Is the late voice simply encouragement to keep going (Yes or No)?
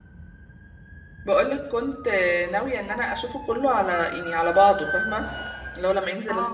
Yes